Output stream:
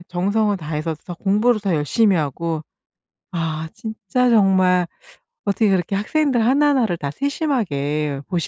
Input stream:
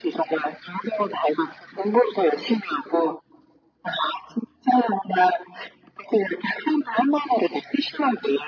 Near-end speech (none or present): none